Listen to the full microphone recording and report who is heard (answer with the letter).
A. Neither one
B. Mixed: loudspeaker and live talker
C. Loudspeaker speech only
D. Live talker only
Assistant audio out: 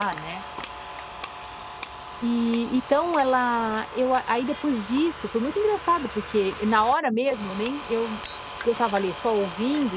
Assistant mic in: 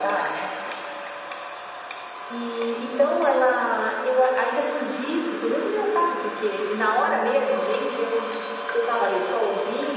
C